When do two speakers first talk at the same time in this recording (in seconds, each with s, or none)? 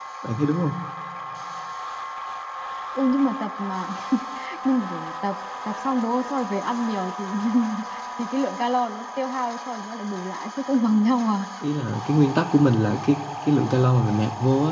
none